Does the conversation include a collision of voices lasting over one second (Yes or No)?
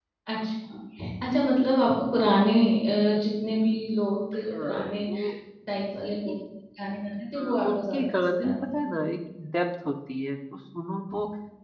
Yes